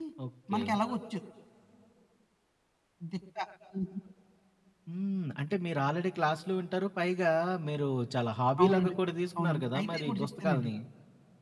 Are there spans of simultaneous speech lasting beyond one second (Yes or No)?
Yes